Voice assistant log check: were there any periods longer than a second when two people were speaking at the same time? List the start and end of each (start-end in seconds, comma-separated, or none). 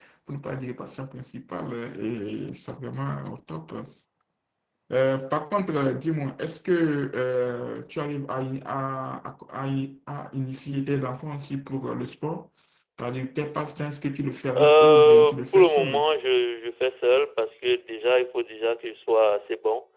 14.6-16.0